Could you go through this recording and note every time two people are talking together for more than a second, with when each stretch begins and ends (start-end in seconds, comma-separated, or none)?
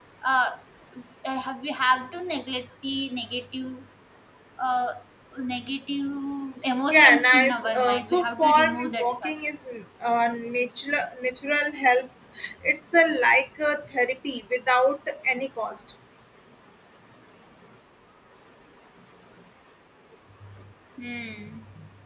6.9-9.3